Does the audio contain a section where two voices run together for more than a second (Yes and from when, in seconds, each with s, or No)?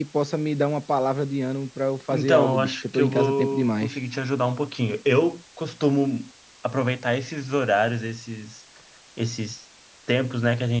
Yes, from 2.1 s